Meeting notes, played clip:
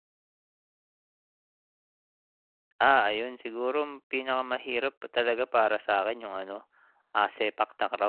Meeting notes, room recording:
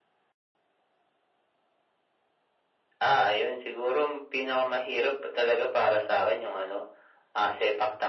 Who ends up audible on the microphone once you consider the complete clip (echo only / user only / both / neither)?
echo only